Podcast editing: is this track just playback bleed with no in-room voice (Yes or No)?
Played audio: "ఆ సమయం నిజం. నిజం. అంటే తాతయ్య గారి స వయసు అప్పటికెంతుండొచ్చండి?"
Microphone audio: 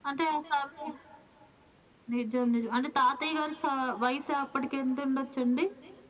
Yes